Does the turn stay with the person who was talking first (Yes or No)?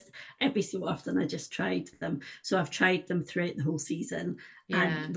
Yes